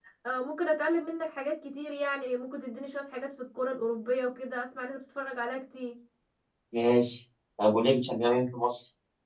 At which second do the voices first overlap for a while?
none

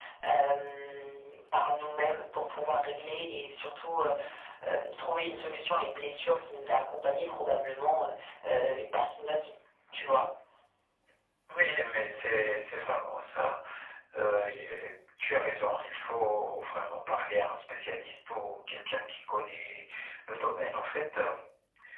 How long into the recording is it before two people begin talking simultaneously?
none

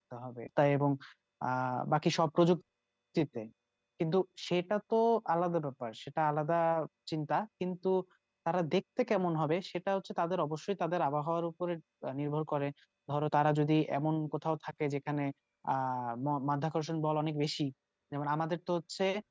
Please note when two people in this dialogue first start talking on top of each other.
none

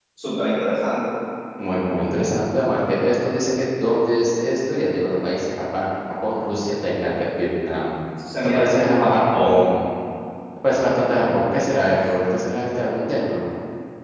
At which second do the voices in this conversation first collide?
8.4 s

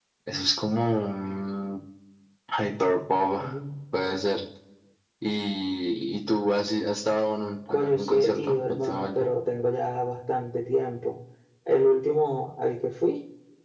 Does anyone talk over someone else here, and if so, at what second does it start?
7.7 s

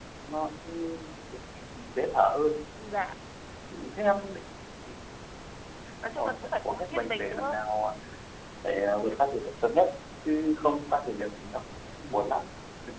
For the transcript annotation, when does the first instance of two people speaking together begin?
6.1 s

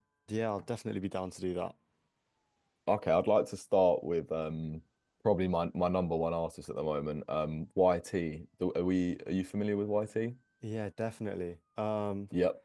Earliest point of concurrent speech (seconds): none

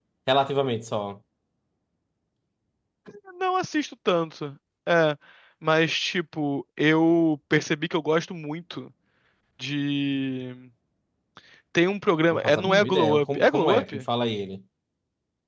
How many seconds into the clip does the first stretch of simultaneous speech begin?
12.3 s

